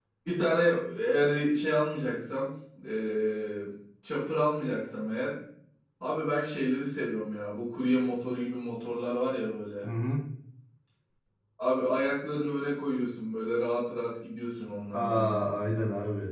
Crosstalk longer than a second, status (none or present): none